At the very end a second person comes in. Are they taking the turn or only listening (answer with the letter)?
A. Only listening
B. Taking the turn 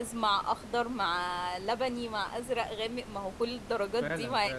B